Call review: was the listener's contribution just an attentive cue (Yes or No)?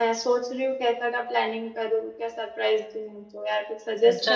No